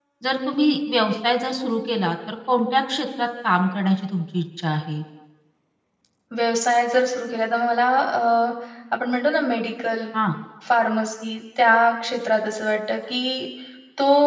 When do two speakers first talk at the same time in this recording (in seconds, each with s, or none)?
none